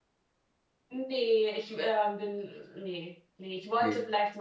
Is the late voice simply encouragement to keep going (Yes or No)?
Yes